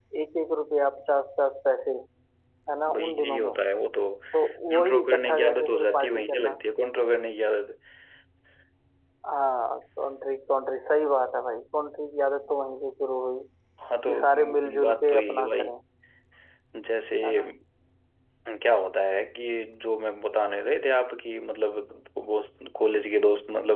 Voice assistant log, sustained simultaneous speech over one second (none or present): present